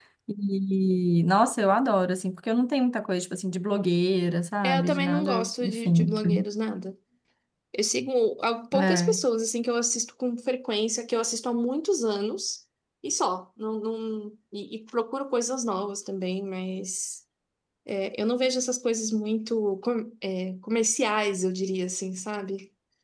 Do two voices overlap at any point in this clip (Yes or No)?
Yes